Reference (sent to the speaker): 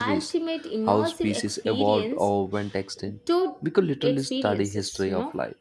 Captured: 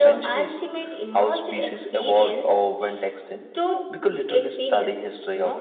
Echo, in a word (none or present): present